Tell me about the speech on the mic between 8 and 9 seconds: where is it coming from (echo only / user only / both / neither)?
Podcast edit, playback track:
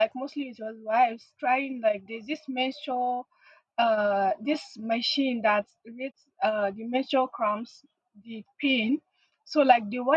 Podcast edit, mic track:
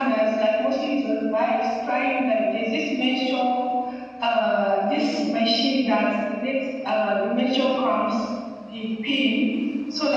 echo only